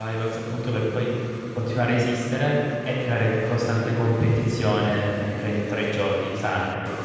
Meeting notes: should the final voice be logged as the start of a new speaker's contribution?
Yes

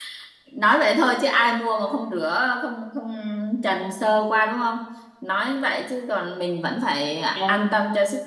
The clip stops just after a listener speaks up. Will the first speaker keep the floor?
No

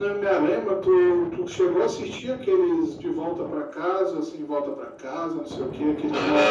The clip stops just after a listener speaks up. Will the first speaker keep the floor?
No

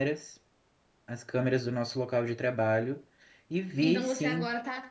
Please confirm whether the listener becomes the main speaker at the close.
Yes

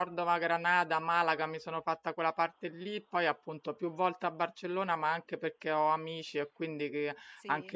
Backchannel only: Yes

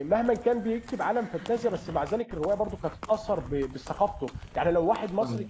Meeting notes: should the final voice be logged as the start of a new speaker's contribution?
No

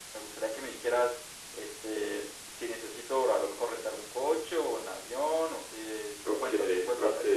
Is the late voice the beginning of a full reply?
Yes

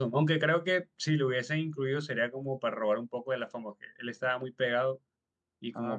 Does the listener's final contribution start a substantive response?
No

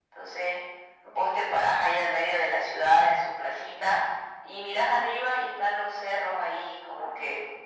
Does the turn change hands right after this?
No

